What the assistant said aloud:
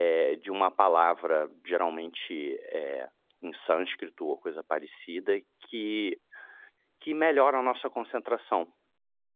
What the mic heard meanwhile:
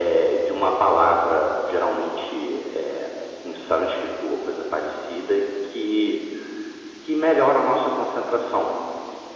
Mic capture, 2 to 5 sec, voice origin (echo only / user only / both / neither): echo only